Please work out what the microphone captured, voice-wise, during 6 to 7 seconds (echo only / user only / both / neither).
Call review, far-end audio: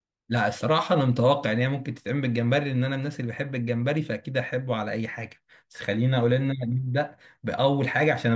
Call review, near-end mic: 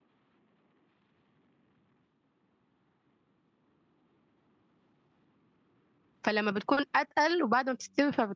user only